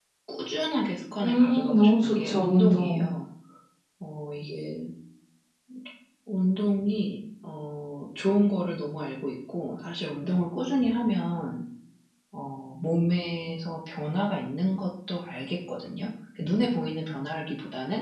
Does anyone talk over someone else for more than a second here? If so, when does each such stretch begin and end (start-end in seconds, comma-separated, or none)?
1.2-3.0